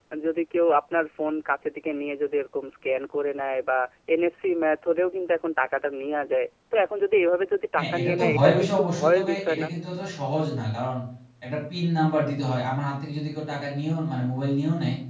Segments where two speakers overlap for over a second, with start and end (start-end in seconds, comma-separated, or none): 7.8-9.7